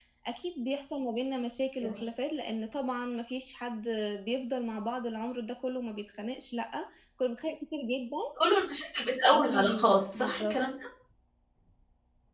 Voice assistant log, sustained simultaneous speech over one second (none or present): present